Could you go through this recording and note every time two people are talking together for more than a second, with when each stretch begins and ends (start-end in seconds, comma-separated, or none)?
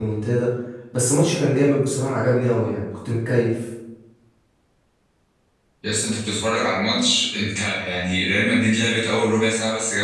none